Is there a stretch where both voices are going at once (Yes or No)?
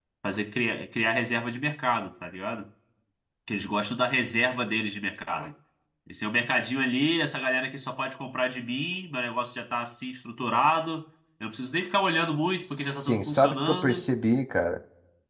Yes